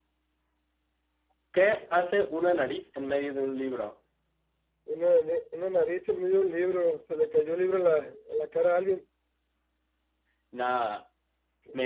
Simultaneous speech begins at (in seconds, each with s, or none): none